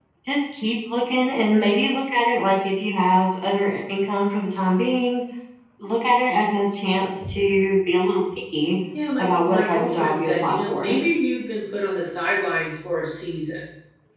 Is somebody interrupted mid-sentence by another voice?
Yes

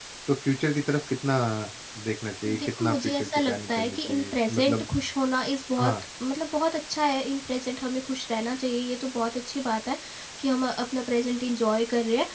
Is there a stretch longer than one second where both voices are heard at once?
Yes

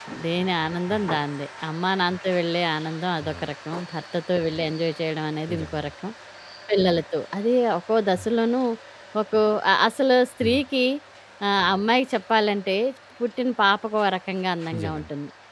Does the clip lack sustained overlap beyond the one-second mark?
Yes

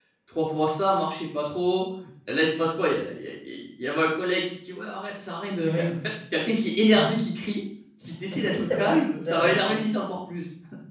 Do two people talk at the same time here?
Yes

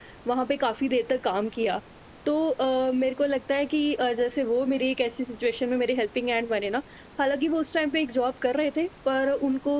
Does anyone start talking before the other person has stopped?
No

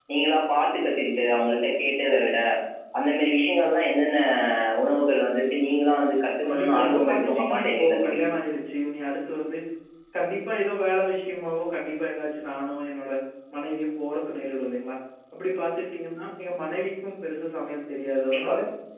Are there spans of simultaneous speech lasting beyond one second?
Yes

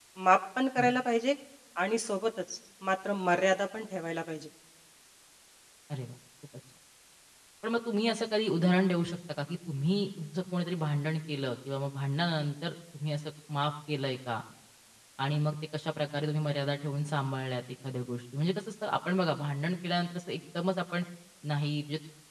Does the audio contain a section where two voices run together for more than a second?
No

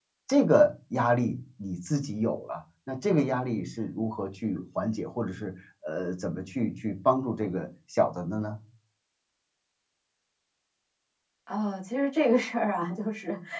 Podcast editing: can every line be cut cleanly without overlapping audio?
Yes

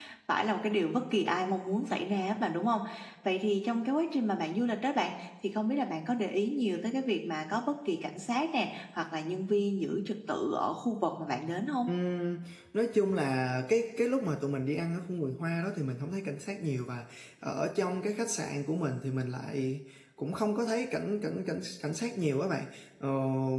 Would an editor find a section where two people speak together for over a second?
No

